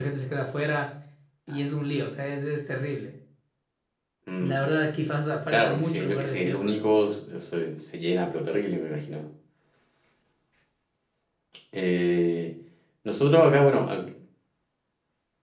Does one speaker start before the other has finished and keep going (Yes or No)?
Yes